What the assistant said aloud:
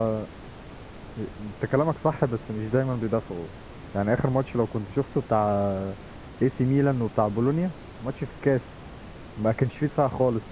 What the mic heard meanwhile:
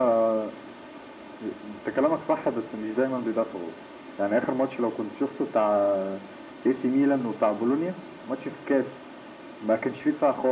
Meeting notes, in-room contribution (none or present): none